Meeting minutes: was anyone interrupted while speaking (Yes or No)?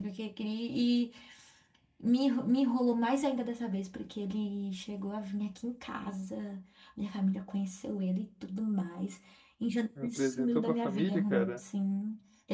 Yes